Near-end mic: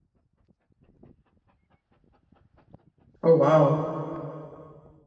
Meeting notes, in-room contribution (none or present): present